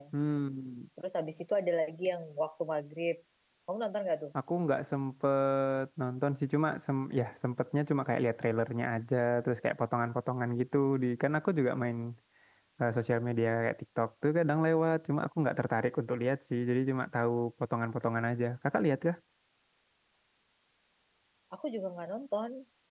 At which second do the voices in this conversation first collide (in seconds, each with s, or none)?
none